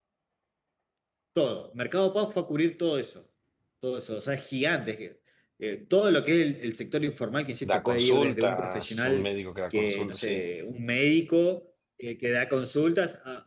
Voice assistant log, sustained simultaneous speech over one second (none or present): present